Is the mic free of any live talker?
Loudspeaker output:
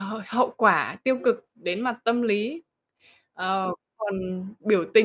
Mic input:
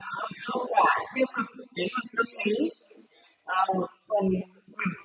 Yes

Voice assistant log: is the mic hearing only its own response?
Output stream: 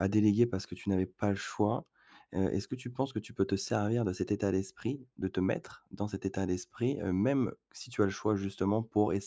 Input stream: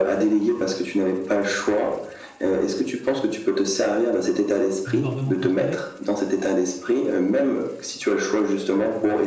No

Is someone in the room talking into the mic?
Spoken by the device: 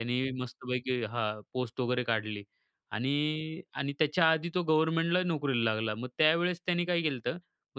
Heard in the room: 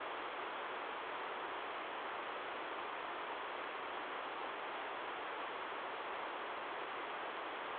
No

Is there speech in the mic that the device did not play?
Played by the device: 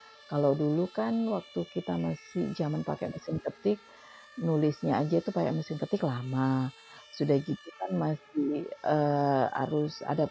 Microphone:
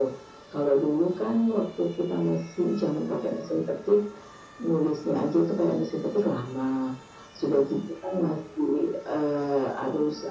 No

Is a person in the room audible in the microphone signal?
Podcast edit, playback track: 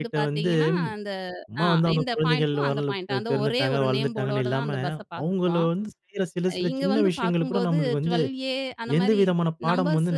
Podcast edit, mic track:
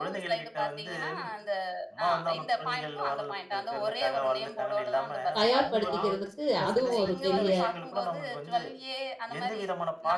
Yes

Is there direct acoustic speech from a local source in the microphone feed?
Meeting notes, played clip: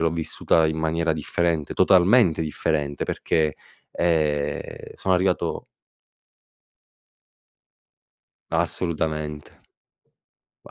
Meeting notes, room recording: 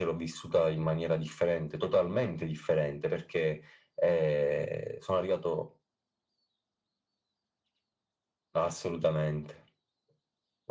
No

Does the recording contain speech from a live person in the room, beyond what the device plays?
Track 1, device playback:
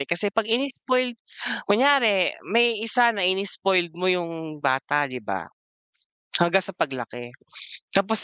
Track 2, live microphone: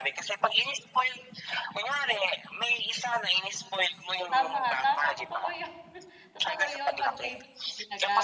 Yes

